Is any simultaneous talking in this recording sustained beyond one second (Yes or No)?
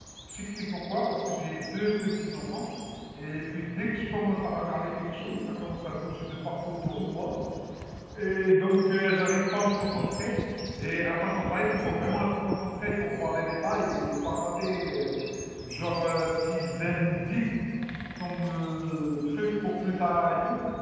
No